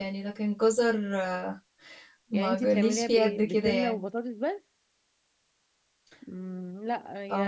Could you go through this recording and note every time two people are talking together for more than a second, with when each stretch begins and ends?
2.3-4.0

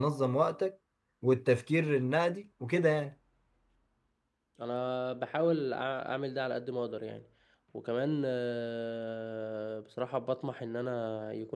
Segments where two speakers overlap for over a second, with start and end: none

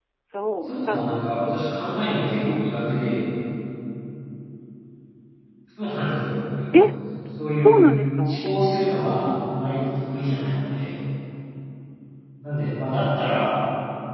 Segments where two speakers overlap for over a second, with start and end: 0.6-2.7

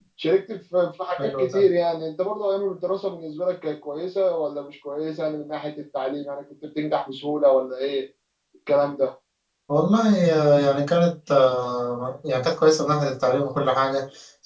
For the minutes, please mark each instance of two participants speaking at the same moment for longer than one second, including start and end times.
none

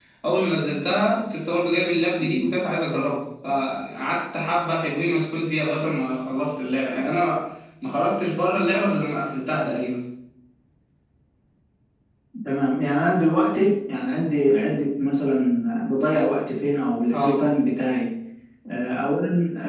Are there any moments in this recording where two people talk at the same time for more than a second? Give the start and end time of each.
none

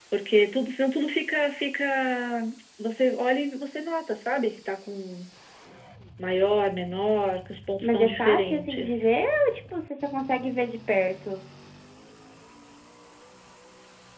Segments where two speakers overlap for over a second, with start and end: 7.8-9.1

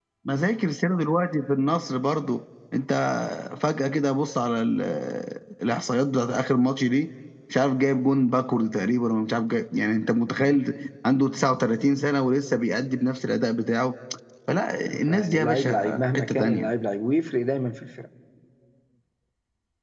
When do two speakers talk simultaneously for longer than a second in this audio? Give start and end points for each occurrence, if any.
14.9-16.7

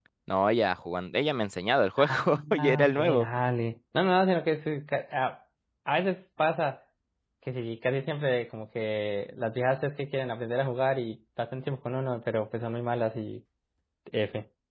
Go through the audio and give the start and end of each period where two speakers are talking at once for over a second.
2.0-3.3

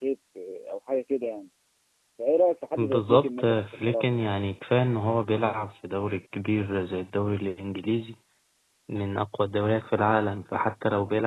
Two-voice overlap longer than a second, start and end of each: 2.8-4.0

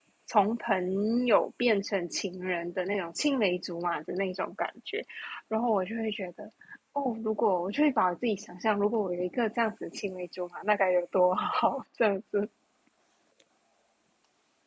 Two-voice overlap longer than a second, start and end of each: none

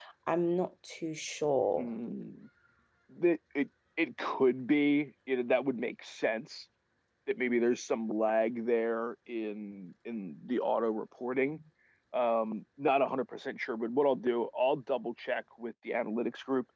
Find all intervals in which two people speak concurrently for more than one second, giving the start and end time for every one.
none

